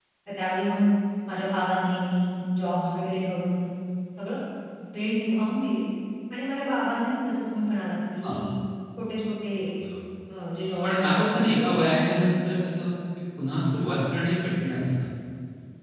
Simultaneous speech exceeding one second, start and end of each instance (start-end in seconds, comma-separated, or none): 10.8-12.4